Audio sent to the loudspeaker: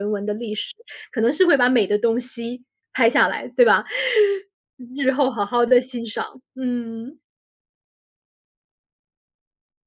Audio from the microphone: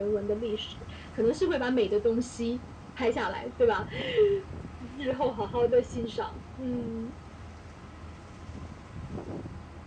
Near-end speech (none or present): none